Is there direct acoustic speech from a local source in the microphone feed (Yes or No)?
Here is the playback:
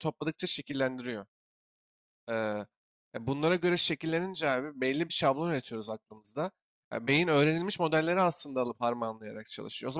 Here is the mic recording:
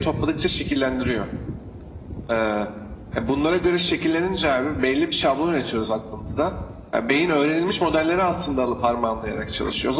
No